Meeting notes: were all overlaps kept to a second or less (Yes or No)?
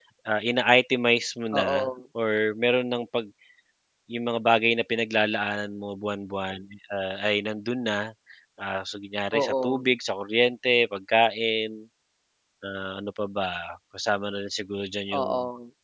Yes